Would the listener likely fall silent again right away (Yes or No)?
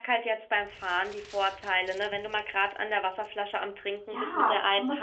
No